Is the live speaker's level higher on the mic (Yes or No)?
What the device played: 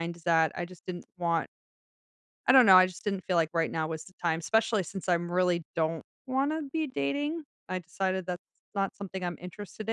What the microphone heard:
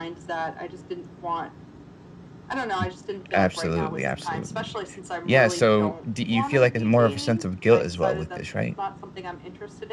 Yes